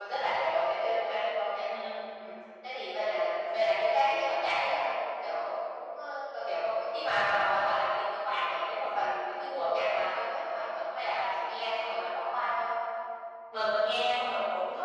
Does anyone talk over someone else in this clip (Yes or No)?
No